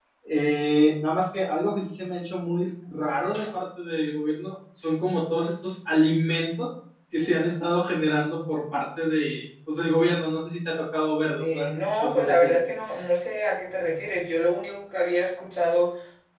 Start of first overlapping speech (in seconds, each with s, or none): 11.4 s